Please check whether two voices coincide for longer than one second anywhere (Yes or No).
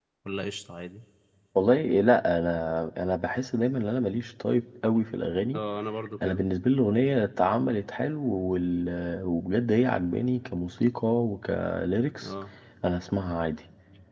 No